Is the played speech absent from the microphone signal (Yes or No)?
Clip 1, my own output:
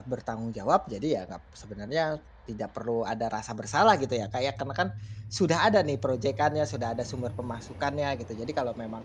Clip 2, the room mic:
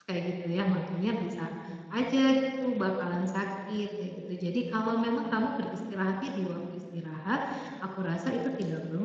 Yes